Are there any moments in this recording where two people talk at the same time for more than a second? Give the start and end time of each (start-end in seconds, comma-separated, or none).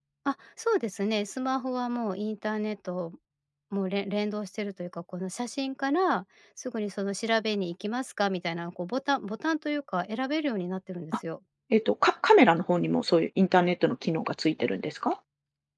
none